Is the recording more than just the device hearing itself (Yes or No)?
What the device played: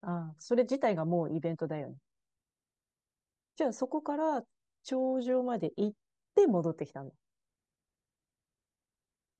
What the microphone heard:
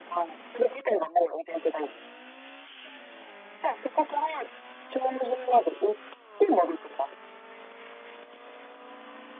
No